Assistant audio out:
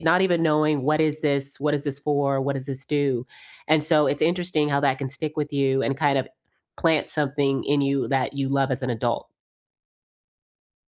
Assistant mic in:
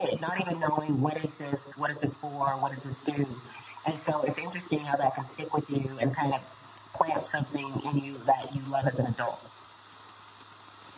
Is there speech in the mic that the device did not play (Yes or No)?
No